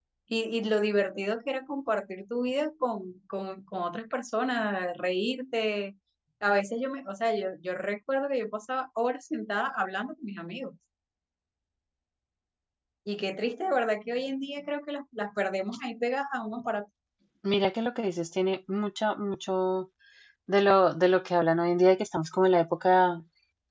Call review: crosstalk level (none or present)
none